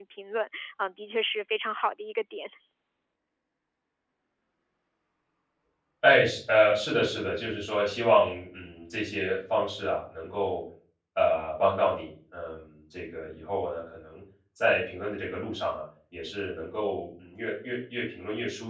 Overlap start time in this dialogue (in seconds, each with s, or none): none